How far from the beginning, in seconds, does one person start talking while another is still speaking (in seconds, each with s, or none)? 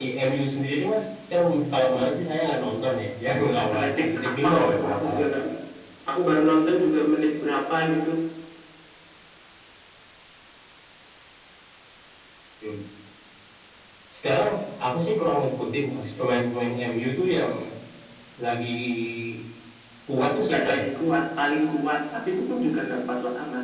3.6 s